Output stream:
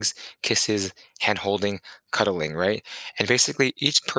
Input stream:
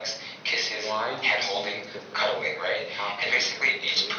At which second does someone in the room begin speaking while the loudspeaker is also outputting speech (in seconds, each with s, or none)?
0.8 s